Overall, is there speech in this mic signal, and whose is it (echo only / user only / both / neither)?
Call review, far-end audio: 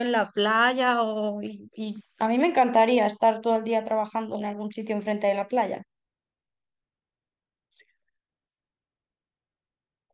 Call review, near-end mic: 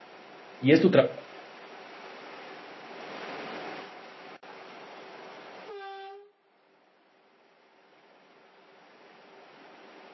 user only